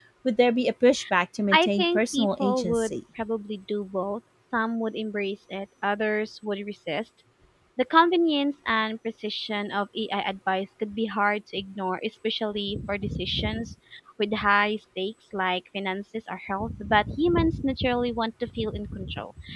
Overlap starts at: 2 s

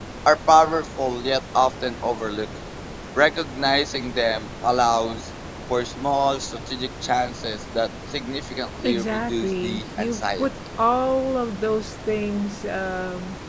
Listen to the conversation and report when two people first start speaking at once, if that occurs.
9 s

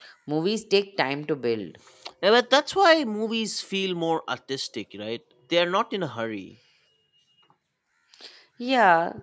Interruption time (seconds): none

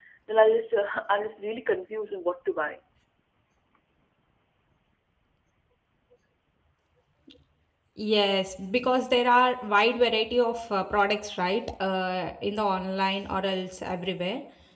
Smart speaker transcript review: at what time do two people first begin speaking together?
none

